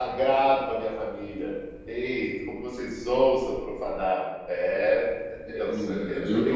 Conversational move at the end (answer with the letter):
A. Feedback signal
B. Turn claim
B